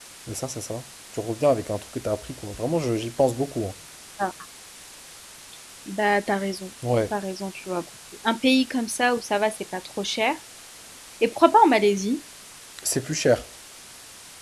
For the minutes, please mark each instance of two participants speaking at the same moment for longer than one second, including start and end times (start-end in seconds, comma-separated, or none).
none